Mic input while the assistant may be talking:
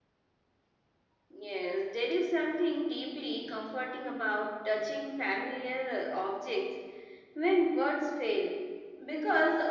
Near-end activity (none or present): none